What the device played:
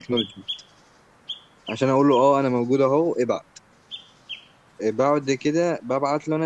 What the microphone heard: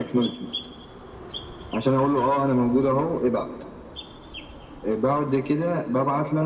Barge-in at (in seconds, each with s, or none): none